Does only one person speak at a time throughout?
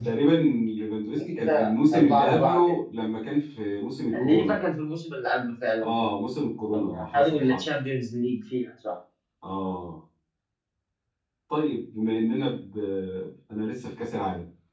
No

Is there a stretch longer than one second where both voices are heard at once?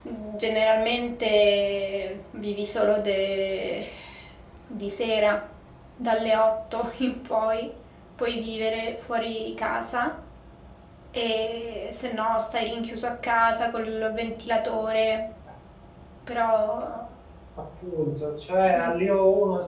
No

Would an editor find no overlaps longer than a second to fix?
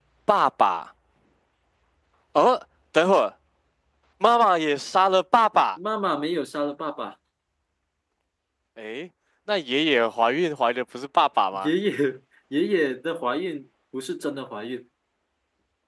Yes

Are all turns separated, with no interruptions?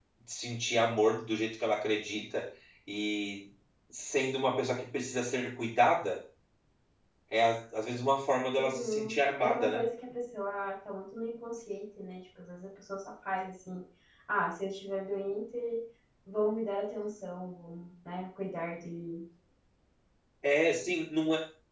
No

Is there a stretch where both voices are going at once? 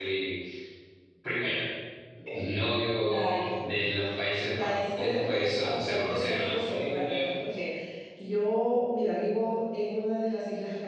Yes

